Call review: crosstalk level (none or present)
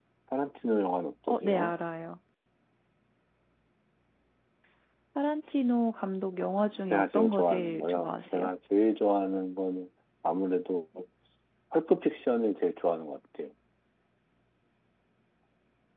present